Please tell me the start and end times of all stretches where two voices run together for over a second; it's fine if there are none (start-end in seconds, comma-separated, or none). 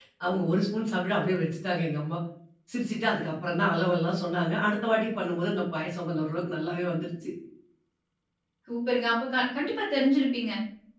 none